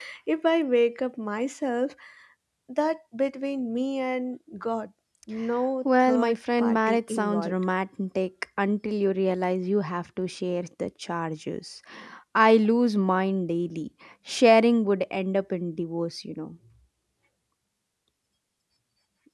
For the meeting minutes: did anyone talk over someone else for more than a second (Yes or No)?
Yes